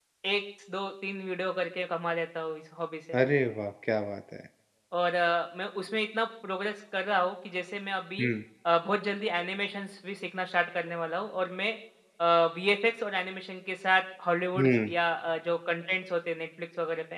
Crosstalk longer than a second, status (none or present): none